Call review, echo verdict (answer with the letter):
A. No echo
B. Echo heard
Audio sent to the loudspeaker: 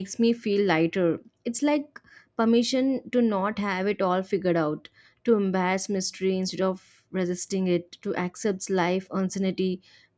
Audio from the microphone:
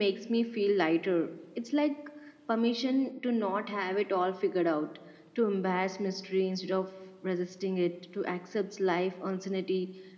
B